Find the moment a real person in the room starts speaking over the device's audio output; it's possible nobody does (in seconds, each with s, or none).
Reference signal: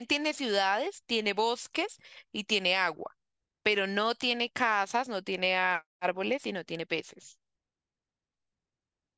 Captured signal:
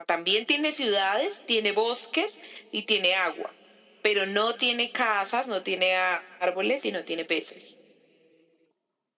none